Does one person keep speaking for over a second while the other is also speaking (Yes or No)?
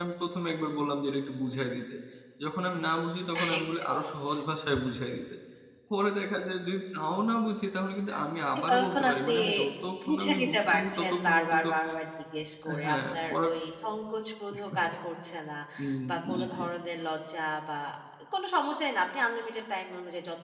Yes